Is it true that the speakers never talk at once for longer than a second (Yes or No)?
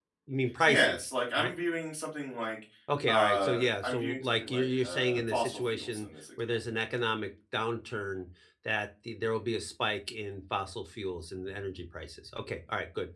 No